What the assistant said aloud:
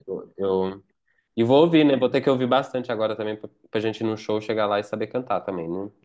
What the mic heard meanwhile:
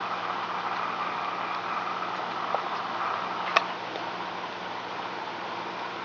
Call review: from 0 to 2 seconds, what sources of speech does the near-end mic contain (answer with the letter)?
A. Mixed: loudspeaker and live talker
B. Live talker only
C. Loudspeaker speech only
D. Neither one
D